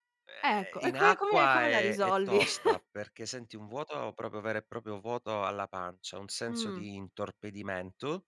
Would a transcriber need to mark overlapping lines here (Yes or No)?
Yes